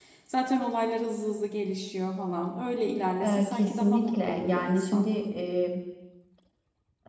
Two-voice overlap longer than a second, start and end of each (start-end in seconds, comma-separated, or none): 3.2-5.0